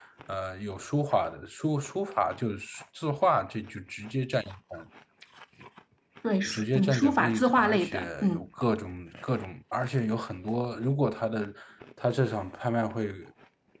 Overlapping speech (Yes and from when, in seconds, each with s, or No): Yes, from 6.5 s